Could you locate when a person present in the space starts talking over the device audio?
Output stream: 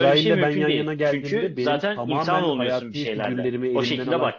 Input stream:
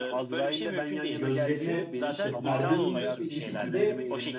1.1 s

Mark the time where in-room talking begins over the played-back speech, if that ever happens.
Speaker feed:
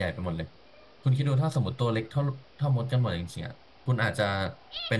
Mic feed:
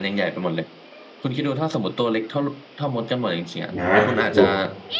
3.8 s

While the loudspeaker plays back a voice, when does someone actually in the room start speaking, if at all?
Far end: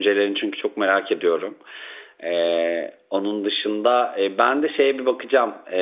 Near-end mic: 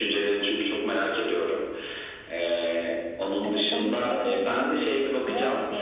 3.4 s

